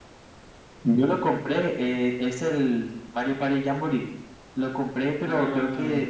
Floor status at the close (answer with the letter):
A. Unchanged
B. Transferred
A